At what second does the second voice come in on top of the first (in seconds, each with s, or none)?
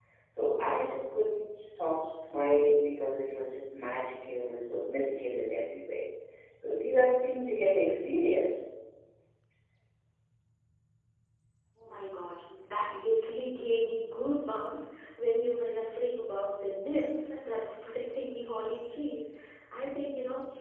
none